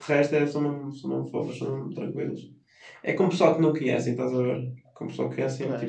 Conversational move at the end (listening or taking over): taking over